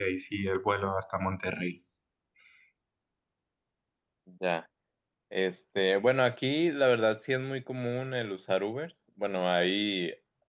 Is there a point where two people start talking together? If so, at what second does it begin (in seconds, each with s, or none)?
none